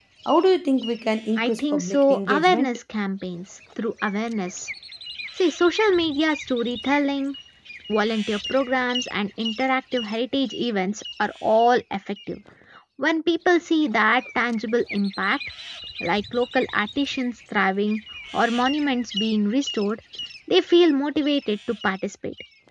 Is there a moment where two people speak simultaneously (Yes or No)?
Yes